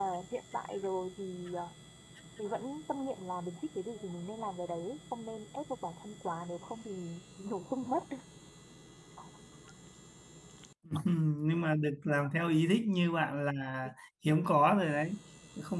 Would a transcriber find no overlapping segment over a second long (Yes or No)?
Yes